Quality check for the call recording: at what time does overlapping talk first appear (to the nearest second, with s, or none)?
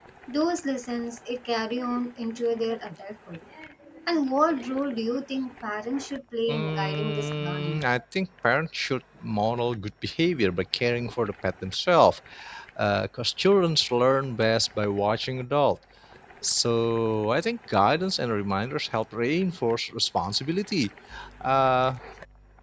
6 s